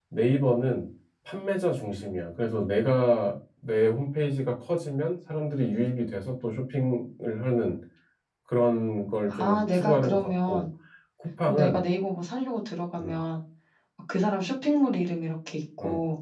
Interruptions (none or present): present